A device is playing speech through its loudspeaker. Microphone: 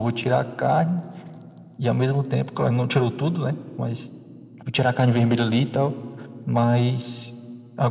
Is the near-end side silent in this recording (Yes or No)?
Yes